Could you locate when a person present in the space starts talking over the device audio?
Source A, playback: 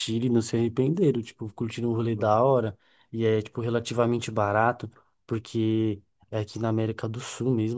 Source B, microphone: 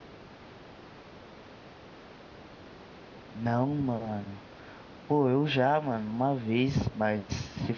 3.3 s

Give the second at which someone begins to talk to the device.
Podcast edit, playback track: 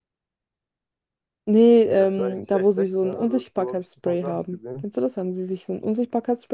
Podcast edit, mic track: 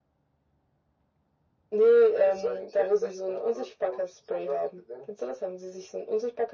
none

